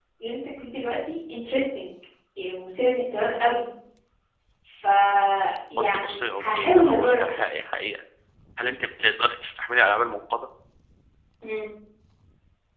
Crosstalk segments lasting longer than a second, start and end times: 5.8-7.2

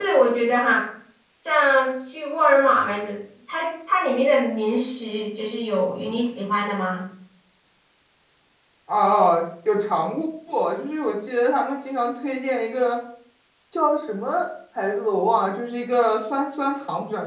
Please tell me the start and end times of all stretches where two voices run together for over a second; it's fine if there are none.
none

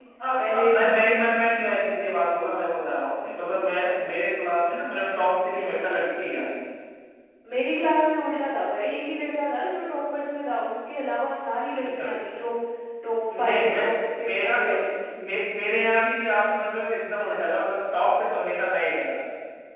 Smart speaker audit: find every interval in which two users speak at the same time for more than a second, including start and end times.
none

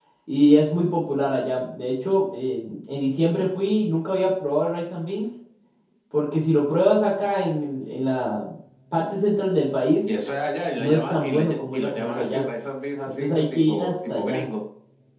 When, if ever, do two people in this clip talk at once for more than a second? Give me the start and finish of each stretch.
10.8-12.4, 13.1-14.5

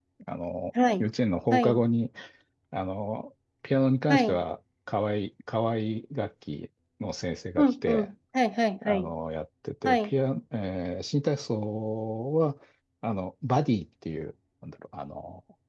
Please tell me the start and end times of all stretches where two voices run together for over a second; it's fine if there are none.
none

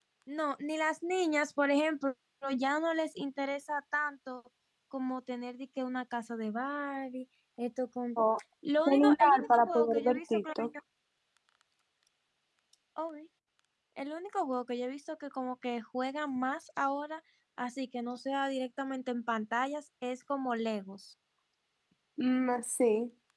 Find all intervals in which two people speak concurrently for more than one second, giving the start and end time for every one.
8.9-10.7

